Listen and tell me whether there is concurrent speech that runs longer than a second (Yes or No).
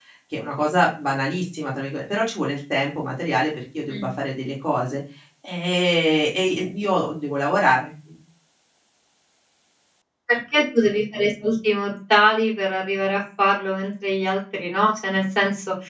No